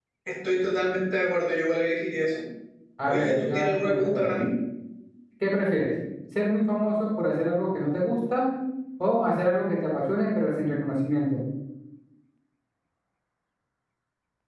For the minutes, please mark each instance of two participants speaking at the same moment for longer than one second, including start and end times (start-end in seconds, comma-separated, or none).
3.1-4.4